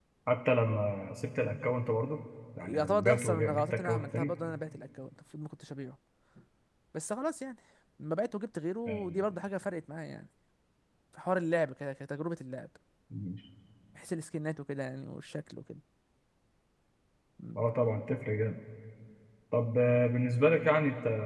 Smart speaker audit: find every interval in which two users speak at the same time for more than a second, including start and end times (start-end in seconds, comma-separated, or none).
2.6-4.4